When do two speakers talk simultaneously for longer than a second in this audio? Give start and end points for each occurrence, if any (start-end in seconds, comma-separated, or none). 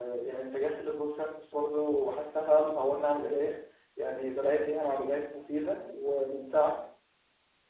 none